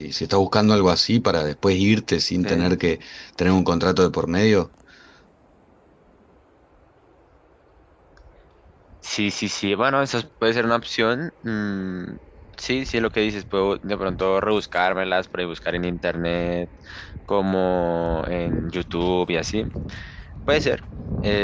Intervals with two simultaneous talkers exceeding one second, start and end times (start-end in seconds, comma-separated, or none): none